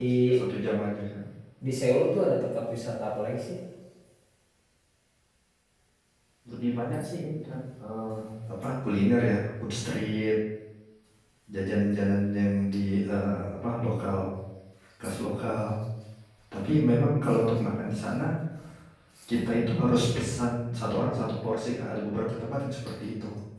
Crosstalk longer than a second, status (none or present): none